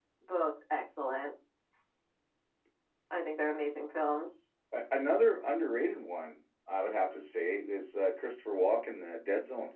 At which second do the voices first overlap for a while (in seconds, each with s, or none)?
none